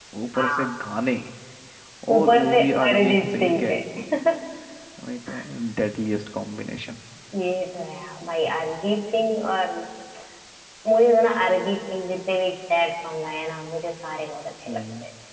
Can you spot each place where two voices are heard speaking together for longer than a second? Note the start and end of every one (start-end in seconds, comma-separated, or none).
2.2-3.8